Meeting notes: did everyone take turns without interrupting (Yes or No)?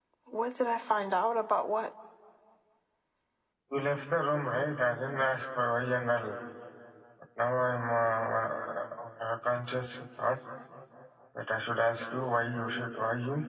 Yes